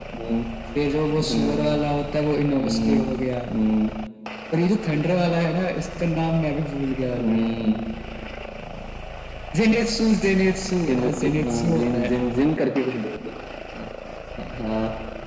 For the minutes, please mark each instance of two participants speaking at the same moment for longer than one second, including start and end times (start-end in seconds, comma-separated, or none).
10.9-12.1